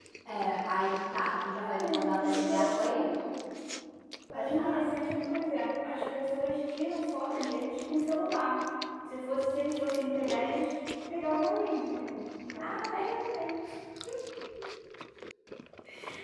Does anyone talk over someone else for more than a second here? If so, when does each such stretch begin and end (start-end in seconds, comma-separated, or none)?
1.5-2.9